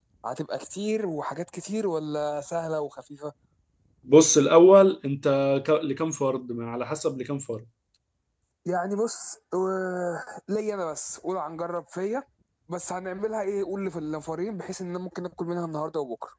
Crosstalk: none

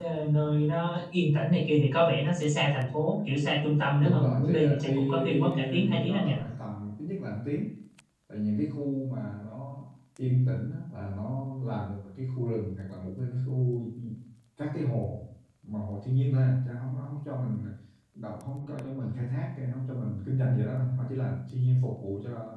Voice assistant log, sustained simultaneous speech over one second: present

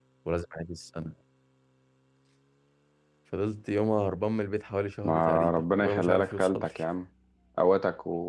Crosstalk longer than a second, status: present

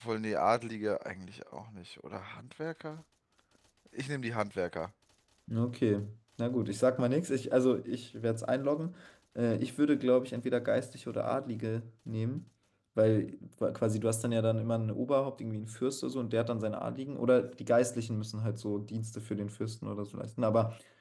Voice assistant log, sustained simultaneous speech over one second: none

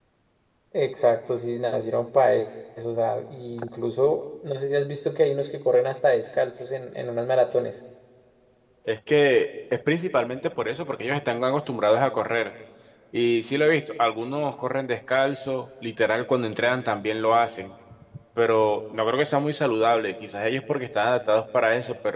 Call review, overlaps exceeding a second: none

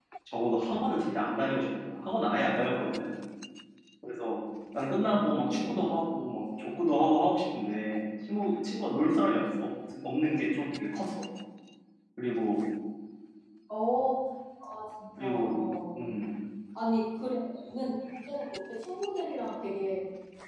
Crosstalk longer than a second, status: none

